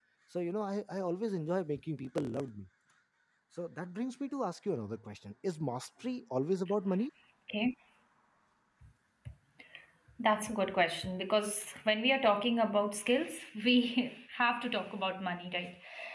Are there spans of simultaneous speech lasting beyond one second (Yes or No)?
No